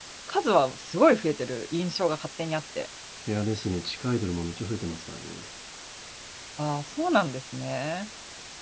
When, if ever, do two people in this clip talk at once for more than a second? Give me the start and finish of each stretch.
none

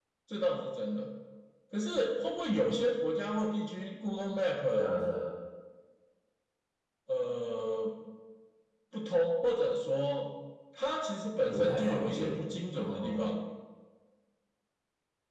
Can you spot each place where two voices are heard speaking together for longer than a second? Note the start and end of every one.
11.5-13.3

